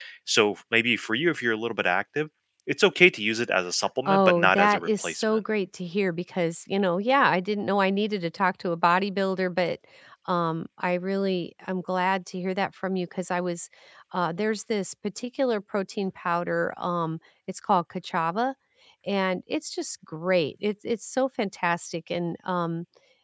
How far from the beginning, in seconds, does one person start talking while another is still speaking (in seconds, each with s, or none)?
4.0 s